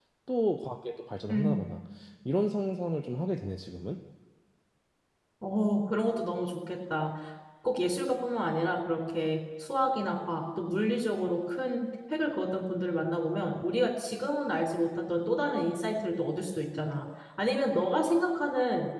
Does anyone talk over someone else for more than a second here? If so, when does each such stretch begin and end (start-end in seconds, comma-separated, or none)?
none